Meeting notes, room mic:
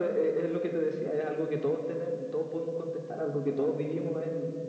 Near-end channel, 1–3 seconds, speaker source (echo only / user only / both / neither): echo only